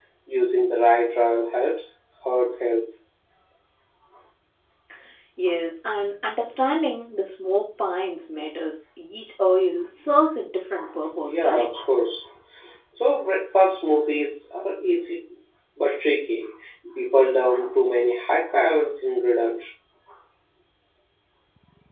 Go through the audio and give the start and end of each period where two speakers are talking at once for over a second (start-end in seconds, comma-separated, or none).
none